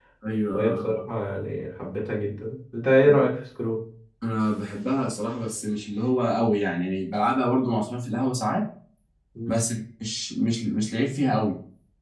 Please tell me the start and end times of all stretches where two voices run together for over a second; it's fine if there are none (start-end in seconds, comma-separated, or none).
none